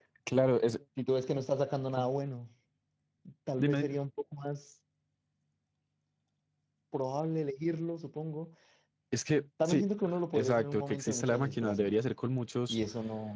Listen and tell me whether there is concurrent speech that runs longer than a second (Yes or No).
Yes